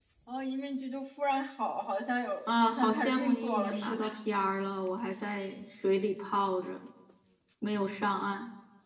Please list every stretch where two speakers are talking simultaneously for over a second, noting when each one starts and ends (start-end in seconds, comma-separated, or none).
2.5-4.0